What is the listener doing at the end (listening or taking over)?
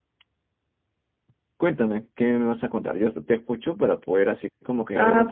taking over